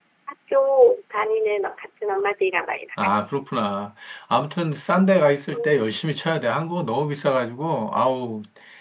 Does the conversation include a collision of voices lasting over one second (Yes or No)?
No